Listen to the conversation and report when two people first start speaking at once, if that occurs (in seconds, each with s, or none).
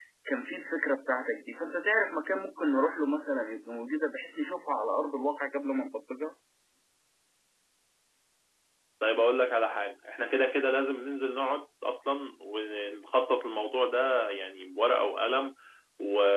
none